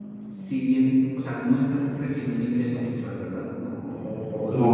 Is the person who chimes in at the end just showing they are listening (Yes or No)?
Yes